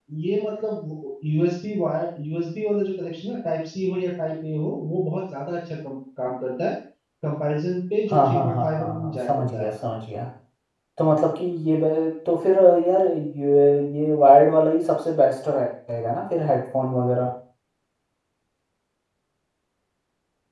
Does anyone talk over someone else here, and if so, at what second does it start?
8.1 s

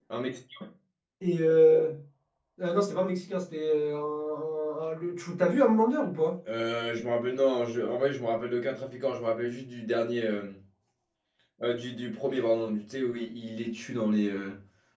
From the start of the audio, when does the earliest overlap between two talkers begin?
none

